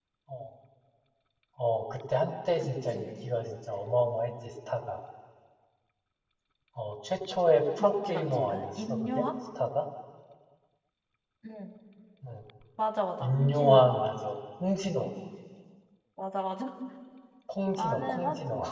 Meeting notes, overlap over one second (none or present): present